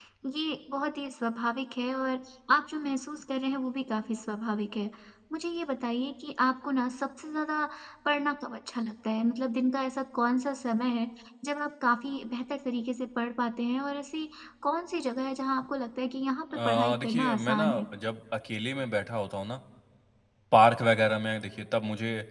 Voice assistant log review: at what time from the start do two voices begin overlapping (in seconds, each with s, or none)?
16.5 s